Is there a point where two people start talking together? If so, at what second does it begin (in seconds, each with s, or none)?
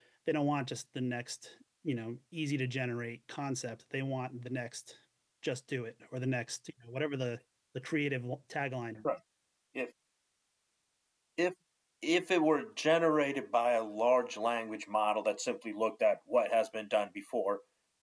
none